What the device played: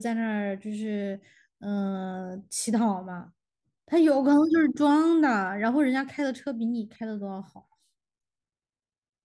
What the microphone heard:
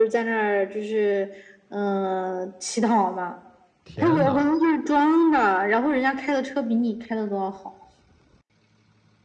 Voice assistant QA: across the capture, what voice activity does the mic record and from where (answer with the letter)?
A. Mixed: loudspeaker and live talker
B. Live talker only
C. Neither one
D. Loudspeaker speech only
A